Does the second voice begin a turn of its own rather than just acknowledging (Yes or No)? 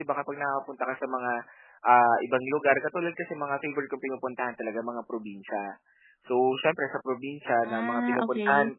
No